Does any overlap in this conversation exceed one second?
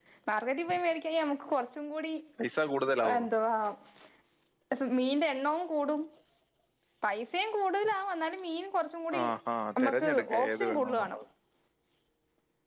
Yes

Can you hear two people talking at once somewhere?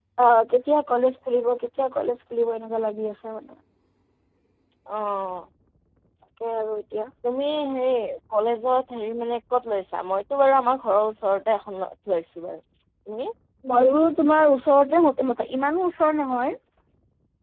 No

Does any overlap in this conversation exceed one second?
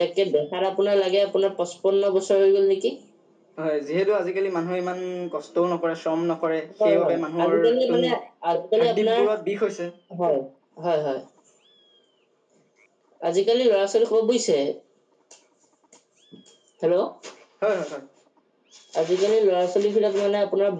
Yes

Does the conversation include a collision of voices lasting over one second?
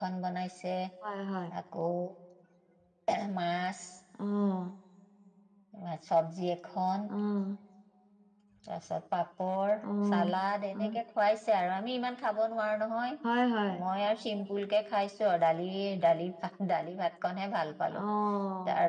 No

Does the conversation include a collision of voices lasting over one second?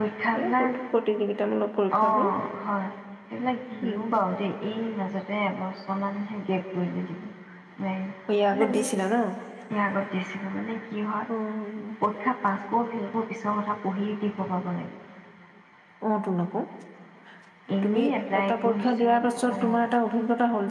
Yes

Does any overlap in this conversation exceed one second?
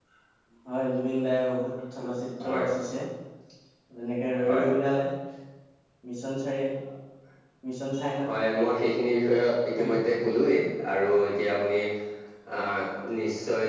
No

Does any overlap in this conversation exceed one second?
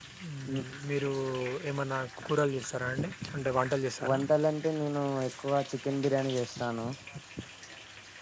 No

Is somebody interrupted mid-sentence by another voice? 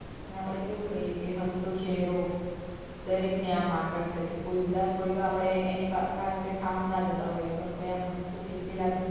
No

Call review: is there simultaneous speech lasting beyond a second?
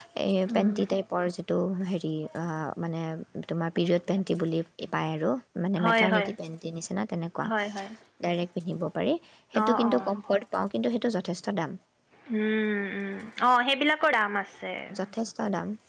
No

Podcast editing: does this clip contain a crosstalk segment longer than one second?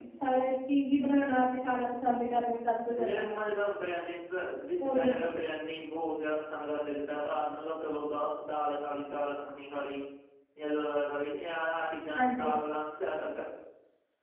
No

